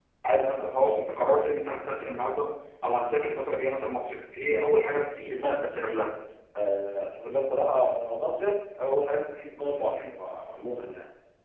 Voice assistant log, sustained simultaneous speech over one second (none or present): none